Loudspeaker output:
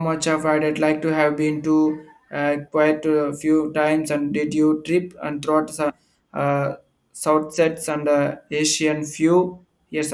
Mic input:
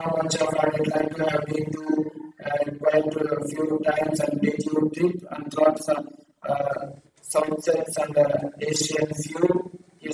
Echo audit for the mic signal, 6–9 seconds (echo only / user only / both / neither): echo only